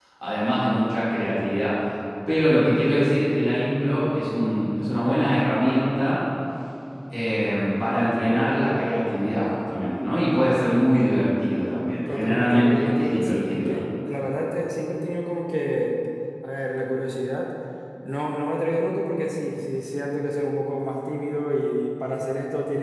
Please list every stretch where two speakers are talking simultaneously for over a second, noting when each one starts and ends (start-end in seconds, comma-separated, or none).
12.1-13.8